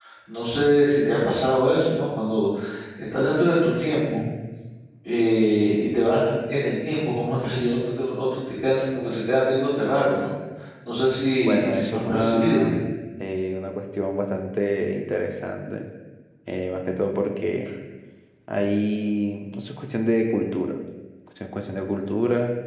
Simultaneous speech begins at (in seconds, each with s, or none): 11.4 s